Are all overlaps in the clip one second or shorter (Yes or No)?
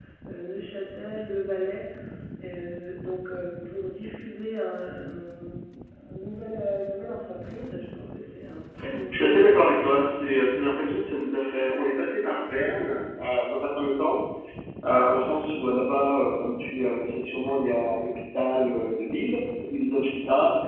Yes